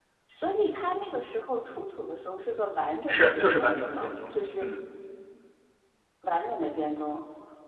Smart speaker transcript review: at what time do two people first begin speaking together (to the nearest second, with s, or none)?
3 s